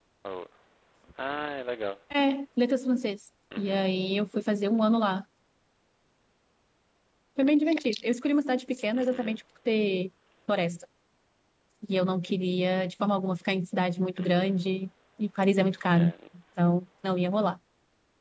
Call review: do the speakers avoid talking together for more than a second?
Yes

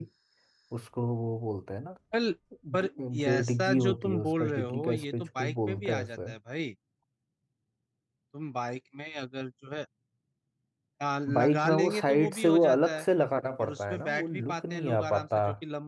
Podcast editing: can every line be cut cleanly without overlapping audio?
No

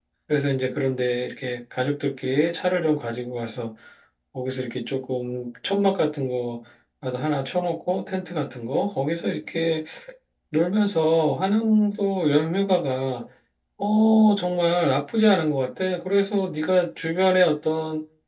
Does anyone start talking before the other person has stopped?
No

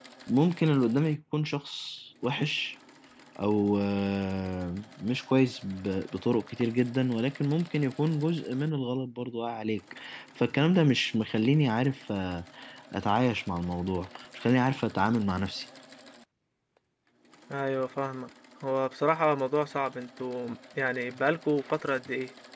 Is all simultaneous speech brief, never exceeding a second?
Yes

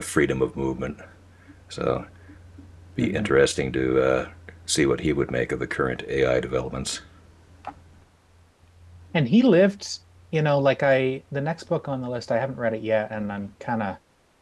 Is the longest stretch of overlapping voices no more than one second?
Yes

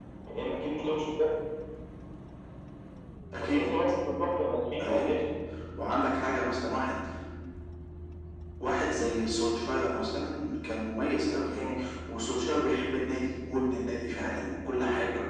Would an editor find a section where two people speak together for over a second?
No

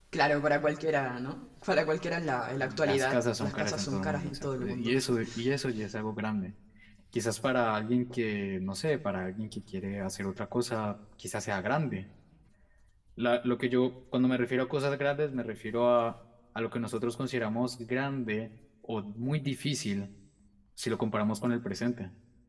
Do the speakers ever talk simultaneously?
Yes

